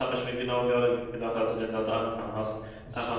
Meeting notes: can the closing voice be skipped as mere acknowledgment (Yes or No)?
Yes